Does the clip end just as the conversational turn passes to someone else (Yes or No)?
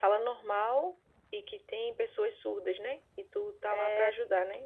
Yes